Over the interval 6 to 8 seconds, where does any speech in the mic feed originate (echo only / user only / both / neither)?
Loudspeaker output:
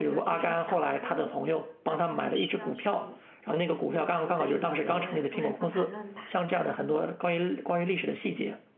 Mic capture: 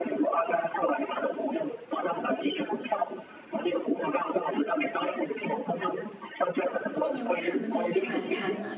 both